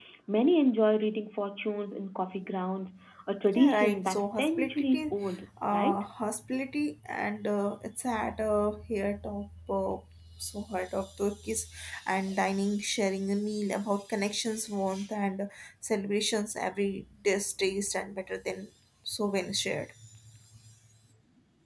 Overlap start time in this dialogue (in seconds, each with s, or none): 3.6 s